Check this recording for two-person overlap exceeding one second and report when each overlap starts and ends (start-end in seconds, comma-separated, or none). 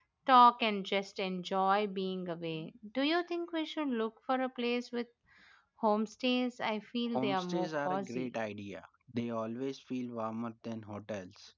7.1-8.4